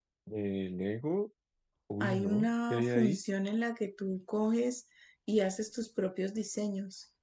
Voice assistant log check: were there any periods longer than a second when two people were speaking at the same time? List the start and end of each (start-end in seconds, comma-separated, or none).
2.0-3.2